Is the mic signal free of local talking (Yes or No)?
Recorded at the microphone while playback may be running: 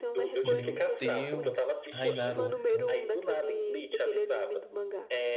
No